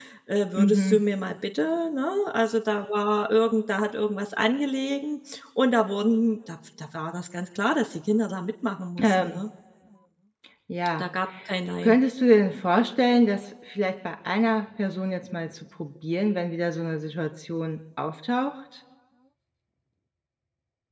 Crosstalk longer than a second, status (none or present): none